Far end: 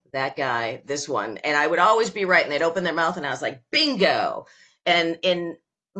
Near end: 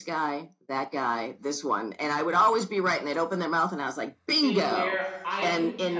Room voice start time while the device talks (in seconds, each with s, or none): 4.4 s